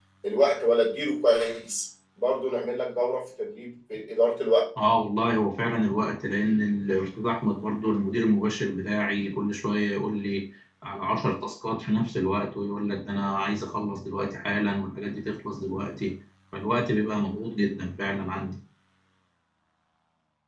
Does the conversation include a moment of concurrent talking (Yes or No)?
No